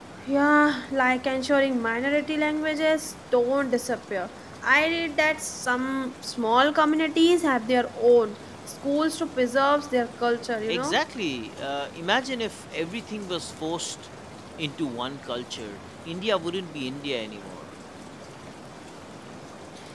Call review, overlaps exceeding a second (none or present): none